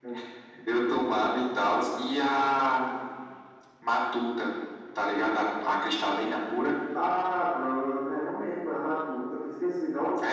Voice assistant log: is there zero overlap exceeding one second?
Yes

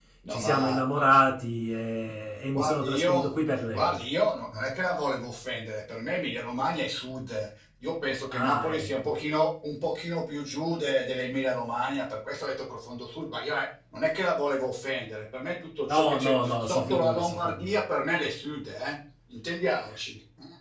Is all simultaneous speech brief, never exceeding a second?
No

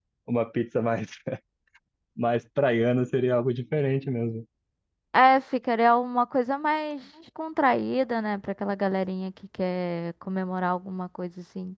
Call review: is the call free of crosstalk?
Yes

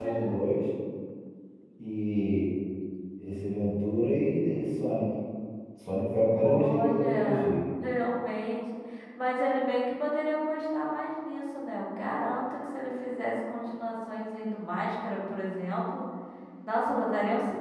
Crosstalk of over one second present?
Yes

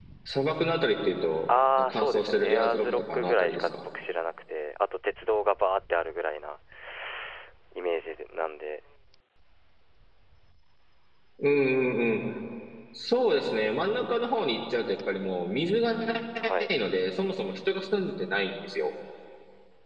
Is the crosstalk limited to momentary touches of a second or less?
No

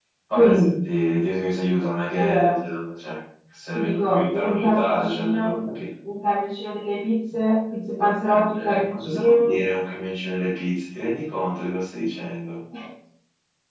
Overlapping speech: Yes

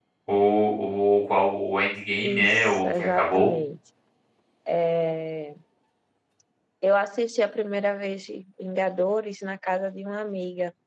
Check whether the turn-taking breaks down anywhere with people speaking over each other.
Yes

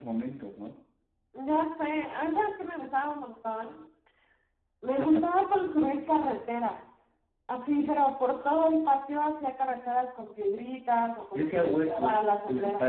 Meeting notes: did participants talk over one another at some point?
Yes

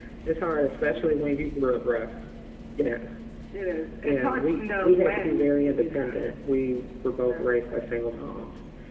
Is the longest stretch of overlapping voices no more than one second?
No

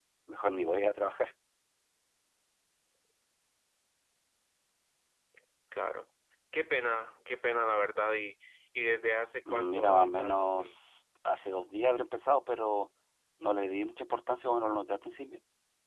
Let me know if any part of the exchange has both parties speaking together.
Yes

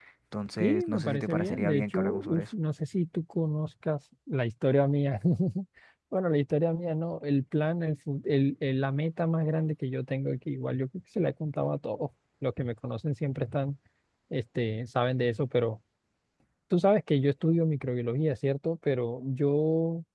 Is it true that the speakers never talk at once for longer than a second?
No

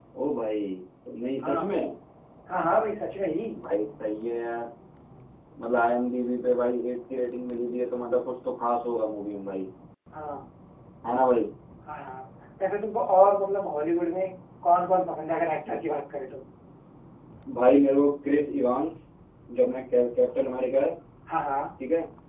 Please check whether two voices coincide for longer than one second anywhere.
No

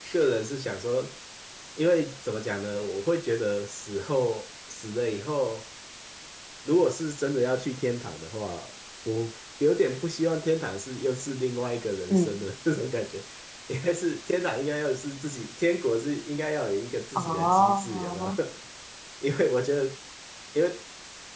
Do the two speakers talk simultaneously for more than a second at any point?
Yes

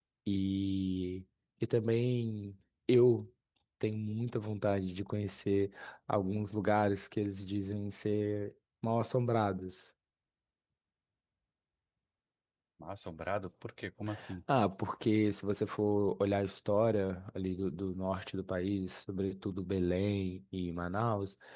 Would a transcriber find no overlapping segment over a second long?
Yes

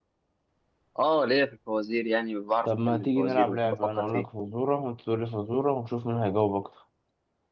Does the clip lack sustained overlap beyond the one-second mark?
No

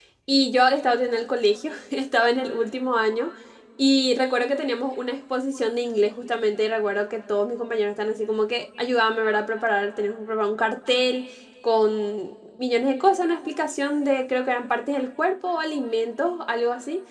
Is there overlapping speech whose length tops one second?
No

